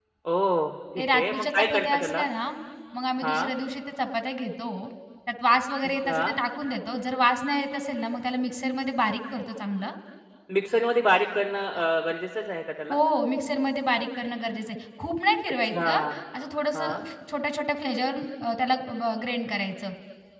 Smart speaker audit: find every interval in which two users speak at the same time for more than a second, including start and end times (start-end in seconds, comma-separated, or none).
1.0-2.2